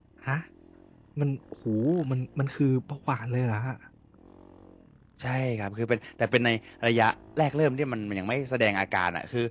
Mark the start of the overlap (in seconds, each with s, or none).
none